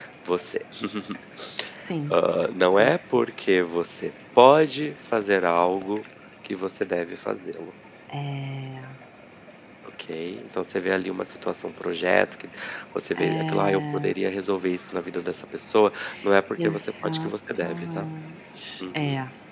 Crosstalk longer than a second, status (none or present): present